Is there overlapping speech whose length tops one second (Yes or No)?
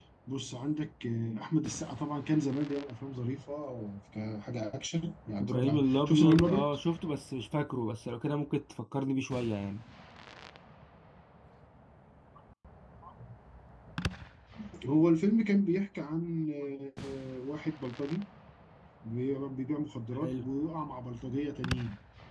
Yes